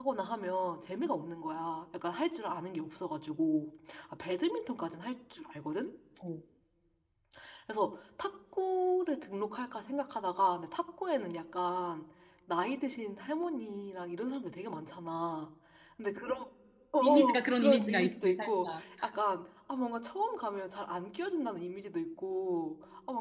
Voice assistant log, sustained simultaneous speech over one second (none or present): present